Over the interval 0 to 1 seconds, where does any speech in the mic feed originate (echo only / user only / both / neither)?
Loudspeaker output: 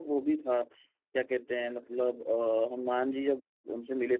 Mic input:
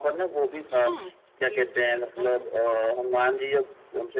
both